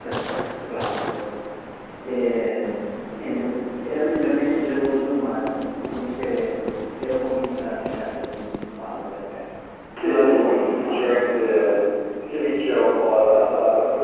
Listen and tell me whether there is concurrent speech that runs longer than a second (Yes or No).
Yes